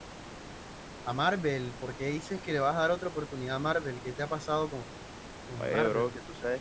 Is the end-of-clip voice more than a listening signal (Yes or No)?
Yes